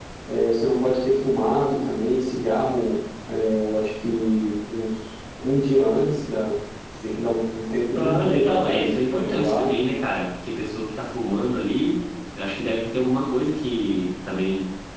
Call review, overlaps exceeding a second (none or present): present